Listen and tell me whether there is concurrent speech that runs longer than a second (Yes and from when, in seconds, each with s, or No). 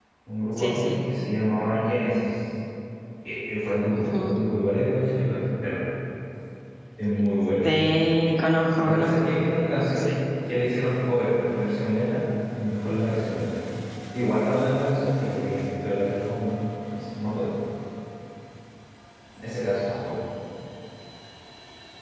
No